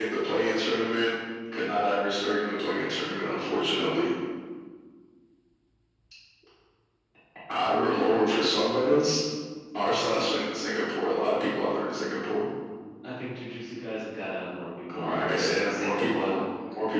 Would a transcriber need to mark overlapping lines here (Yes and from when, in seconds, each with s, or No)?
Yes, from 14.9 s